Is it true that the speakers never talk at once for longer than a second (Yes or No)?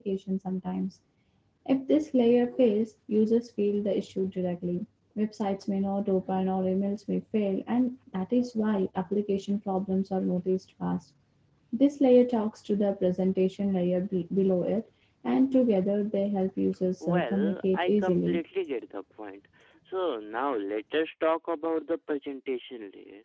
No